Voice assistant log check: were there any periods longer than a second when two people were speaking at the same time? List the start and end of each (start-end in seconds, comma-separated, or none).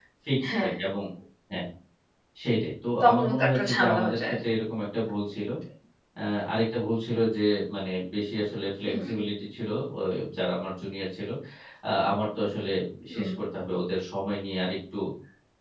3.0-4.4